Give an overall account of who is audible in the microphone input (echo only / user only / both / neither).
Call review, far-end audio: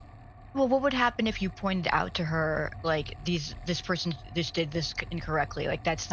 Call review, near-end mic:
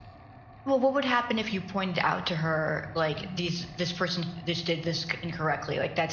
both